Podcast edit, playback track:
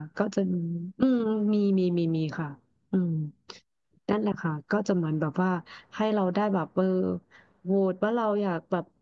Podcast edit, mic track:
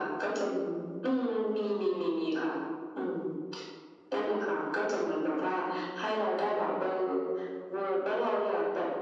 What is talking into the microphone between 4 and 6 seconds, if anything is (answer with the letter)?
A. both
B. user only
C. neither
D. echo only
D